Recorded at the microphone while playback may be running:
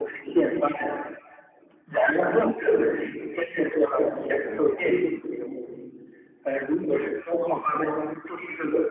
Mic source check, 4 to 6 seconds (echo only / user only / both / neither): echo only